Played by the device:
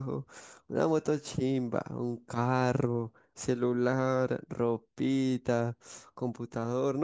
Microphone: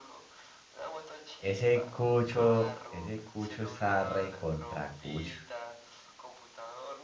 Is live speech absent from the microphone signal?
No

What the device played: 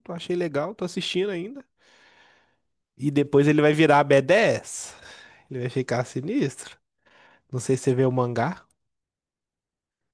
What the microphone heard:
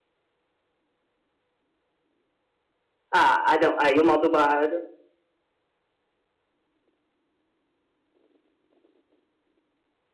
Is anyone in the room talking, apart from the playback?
Yes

